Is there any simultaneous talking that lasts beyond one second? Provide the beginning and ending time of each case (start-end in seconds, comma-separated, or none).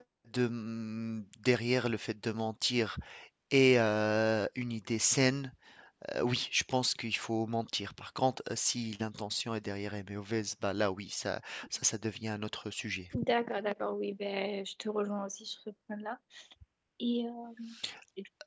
none